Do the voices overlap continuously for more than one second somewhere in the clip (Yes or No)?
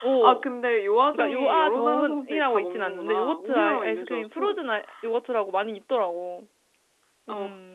Yes